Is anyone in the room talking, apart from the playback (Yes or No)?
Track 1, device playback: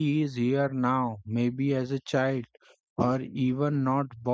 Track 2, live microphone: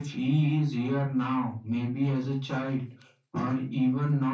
No